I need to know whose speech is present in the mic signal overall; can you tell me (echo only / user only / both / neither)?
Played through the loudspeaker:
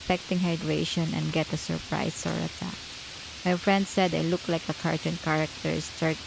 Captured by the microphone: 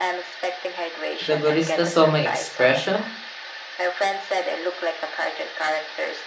both